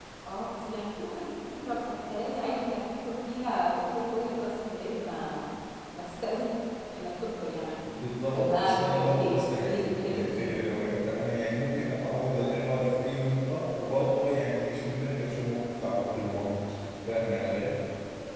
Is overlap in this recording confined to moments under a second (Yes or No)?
No